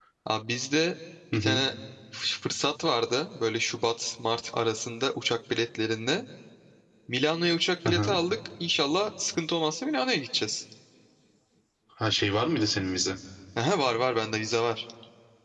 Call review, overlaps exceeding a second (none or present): none